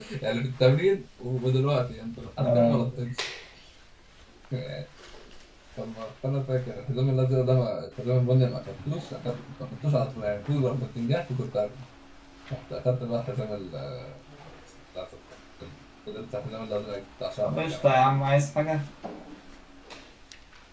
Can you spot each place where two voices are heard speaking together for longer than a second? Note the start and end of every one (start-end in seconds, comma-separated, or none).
none